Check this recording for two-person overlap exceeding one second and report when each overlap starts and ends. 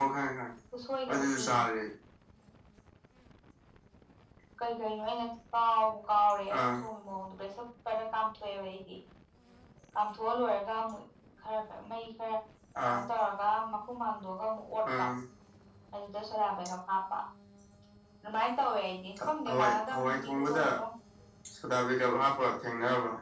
19.2-20.6

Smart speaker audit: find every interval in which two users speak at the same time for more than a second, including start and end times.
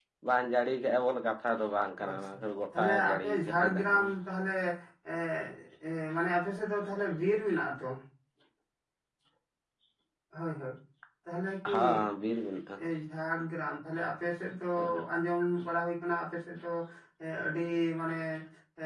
2.8-4.0

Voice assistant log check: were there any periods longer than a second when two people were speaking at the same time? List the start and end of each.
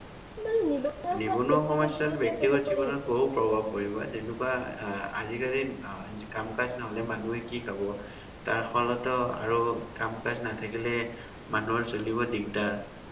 1.2-3.1

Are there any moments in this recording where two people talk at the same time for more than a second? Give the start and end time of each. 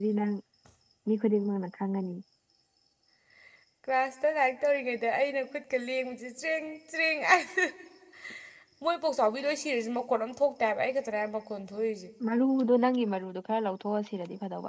none

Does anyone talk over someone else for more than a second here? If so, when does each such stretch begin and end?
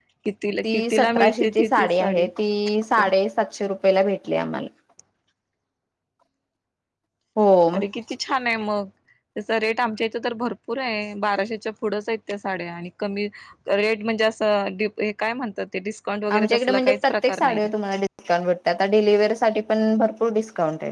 0.6-2.2, 16.4-17.6

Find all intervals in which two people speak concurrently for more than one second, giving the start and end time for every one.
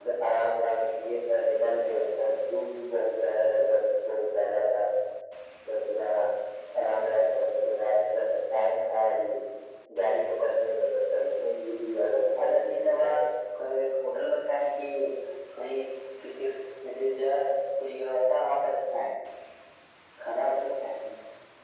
12.0-13.2

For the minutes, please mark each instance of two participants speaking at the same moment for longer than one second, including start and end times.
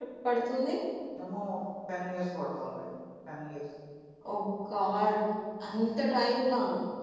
none

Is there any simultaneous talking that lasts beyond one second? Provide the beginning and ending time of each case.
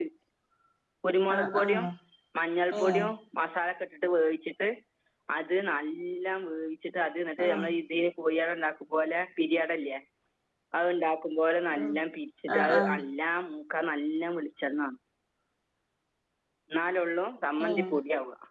none

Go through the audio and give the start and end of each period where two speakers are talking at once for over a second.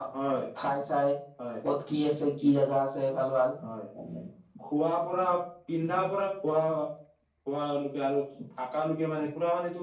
none

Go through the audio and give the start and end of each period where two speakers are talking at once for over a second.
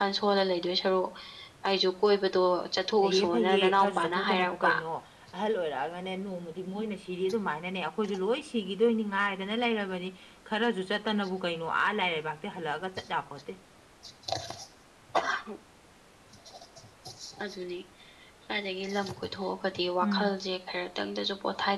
3.0-4.7

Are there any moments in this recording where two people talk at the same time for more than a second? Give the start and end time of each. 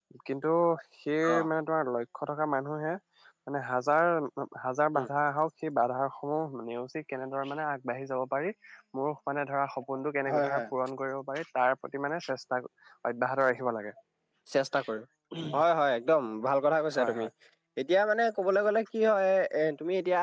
none

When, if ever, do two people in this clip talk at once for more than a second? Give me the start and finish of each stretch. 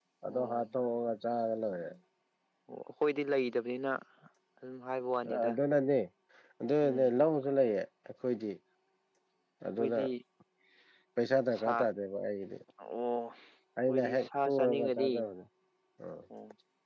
13.9-15.1

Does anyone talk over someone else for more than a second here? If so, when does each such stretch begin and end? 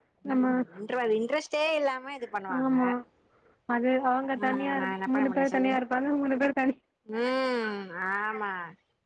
4.4-5.7

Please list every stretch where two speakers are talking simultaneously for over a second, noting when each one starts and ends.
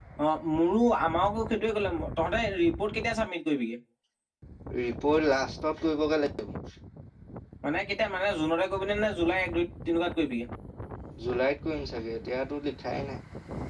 none

